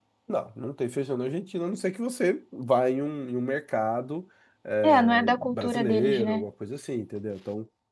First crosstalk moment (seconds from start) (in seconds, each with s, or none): 4.8 s